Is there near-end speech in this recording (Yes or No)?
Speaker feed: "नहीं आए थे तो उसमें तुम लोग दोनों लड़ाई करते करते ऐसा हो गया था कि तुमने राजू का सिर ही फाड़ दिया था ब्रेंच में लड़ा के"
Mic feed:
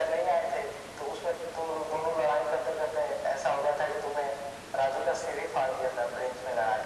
No